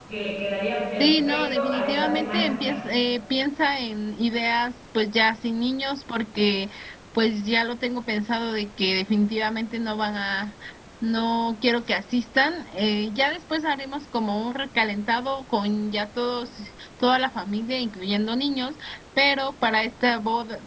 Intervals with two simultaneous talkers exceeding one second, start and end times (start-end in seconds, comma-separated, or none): 1.0-2.8